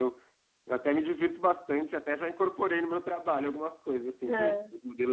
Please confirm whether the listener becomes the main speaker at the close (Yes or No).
No